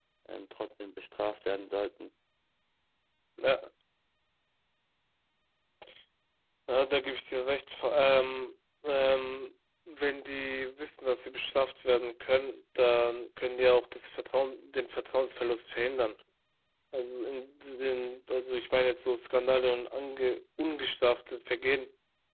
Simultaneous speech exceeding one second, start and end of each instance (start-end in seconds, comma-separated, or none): none